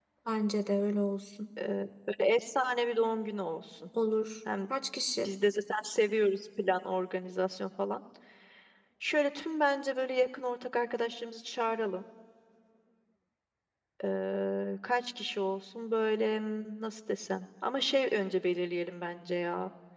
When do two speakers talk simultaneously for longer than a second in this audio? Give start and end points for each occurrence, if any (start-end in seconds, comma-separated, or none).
none